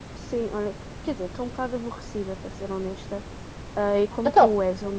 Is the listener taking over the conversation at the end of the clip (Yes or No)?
No